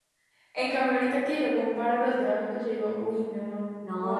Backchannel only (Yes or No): No